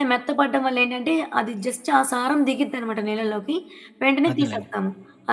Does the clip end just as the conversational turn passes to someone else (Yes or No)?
No